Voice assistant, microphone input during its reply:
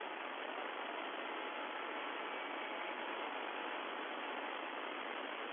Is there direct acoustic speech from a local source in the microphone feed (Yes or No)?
No